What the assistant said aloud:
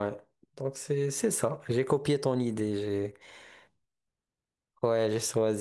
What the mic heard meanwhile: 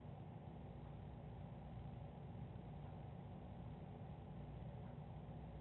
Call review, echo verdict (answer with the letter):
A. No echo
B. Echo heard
A